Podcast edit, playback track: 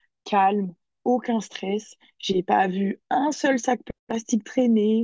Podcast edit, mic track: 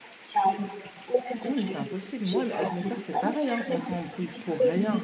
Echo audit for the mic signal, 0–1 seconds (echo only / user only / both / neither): echo only